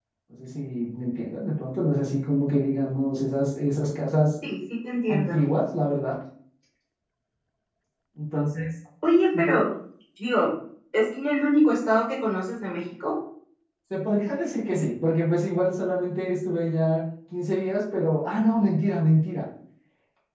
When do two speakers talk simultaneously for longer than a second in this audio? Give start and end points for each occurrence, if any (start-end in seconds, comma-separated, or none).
none